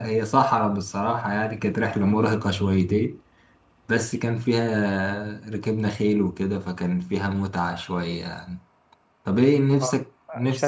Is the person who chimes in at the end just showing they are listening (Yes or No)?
No